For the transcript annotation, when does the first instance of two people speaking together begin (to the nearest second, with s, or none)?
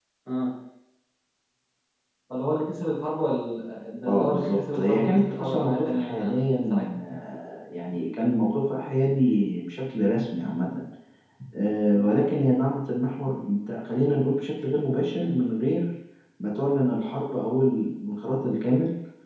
4 s